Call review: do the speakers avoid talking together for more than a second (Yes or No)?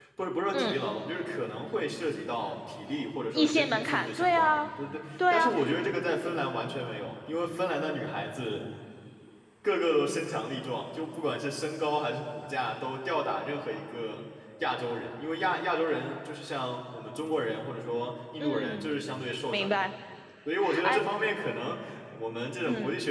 No